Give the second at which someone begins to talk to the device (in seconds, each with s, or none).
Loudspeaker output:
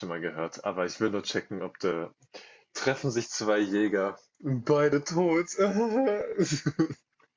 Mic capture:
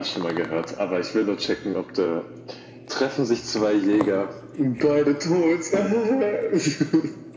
none